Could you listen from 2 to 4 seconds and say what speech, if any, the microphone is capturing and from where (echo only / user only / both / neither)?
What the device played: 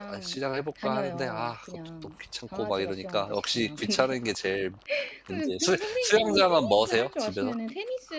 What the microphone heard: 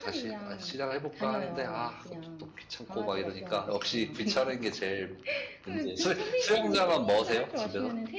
echo only